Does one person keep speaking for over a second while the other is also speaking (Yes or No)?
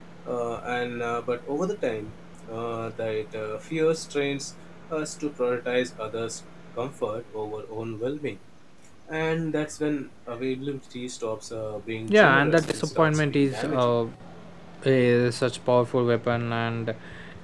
Yes